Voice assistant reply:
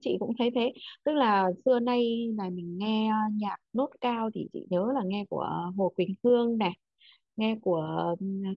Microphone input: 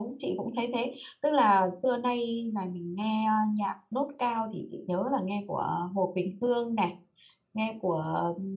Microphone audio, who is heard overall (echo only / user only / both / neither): echo only